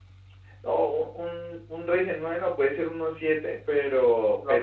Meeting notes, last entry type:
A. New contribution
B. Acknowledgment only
B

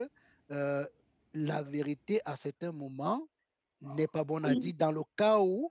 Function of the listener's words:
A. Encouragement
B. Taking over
A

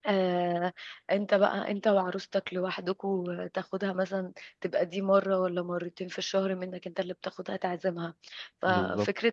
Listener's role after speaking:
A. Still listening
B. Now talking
A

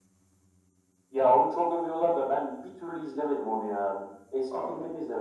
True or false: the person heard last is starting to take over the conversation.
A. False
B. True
A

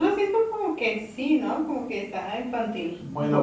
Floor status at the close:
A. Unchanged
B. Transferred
B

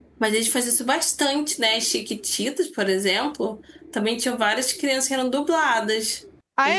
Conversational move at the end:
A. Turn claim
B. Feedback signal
A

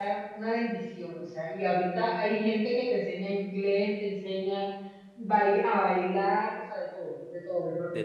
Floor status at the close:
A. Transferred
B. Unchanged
A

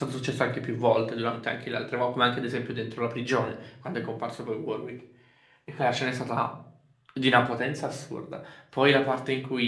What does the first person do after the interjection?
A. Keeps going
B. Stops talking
A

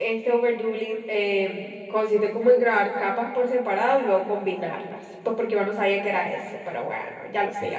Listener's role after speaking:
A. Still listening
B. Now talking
B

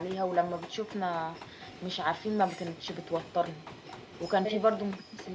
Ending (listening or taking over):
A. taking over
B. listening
B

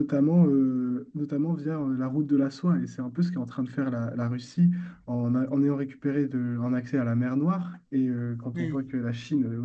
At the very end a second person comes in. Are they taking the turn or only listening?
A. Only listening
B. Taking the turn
A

